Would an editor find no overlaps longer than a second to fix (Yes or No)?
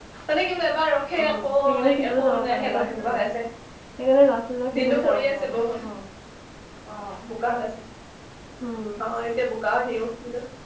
No